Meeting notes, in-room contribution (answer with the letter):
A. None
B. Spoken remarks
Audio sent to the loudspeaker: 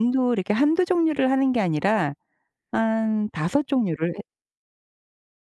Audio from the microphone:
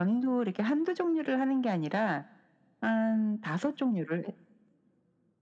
A